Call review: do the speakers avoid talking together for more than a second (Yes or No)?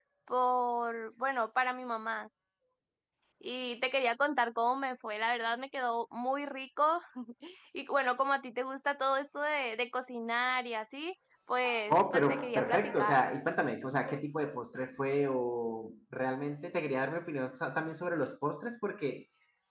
No